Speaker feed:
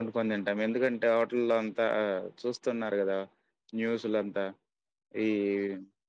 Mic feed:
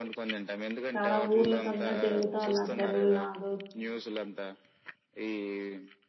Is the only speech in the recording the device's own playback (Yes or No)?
No